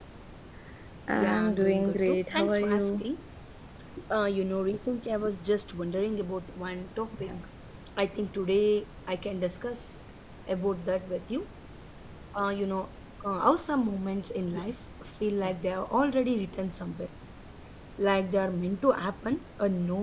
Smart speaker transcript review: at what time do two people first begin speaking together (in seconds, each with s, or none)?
1.1 s